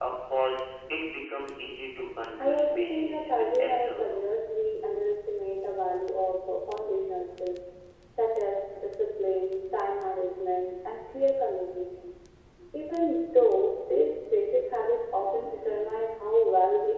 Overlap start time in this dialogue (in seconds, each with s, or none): 2.4 s